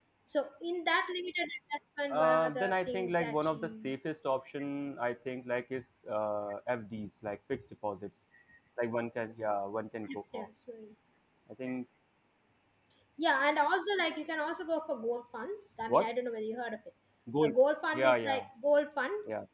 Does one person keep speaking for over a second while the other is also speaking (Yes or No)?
Yes